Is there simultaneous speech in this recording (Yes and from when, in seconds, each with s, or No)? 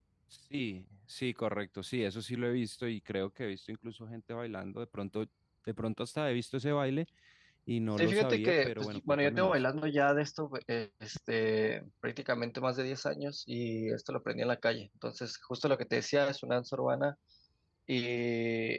Yes, from 8.0 s